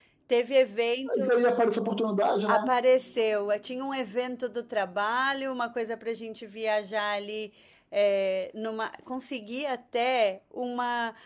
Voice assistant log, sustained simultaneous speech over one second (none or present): none